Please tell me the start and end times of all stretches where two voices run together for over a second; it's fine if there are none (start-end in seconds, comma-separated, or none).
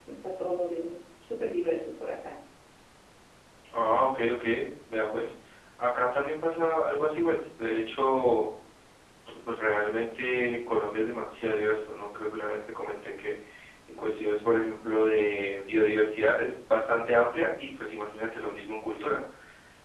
none